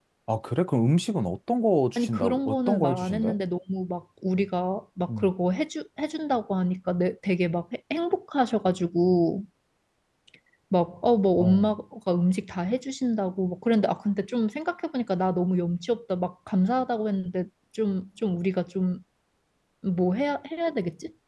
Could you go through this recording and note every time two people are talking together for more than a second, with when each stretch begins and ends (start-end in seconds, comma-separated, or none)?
2.0-3.4